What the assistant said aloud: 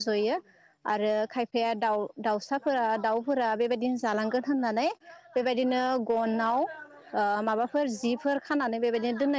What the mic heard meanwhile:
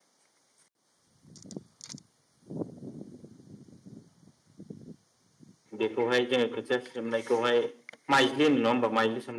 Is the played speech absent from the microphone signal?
Yes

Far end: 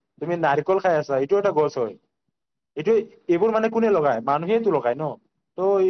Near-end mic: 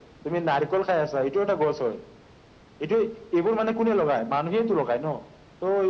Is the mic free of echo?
No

